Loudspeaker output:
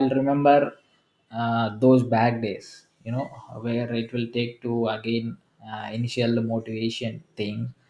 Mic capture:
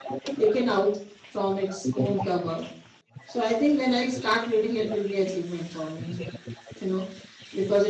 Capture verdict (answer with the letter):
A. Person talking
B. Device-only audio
A